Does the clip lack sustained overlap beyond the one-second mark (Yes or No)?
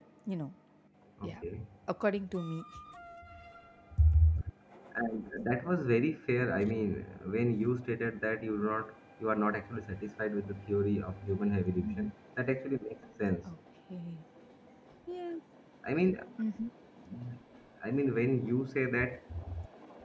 Yes